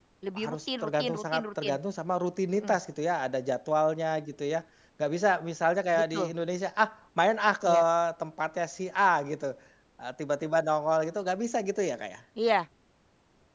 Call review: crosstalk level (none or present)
present